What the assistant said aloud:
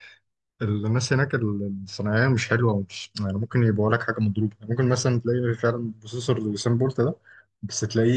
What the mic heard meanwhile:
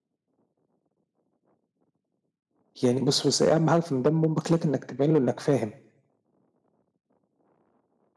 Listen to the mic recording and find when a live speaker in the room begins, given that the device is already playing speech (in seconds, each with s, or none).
2.8 s